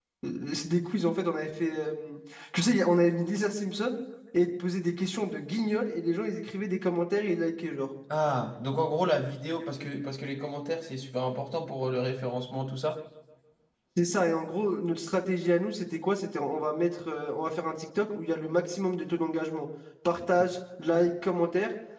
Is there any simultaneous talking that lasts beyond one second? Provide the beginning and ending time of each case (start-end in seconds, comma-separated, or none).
none